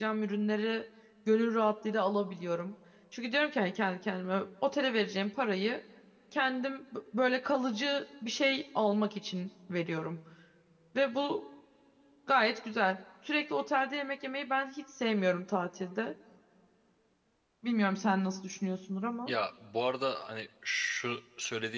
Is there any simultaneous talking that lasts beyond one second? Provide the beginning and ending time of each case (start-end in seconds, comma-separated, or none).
none